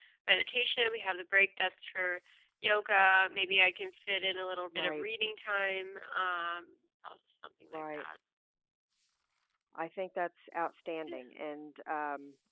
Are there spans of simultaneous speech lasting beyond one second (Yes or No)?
No